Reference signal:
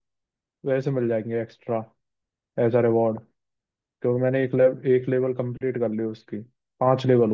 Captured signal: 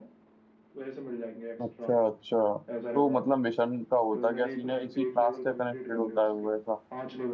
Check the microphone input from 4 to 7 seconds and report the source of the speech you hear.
both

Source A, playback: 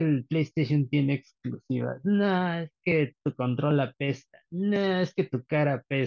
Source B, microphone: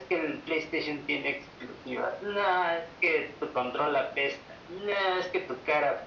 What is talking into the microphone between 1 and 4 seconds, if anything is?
echo only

